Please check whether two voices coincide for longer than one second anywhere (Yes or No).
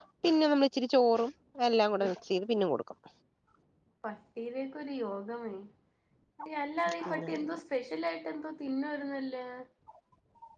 No